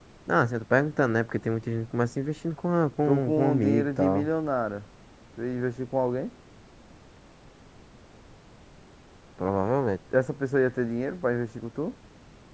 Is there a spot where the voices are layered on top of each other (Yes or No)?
Yes